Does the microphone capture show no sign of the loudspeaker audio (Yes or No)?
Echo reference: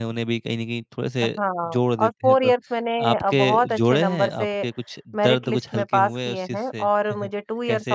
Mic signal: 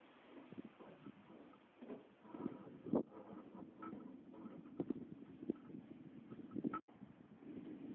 Yes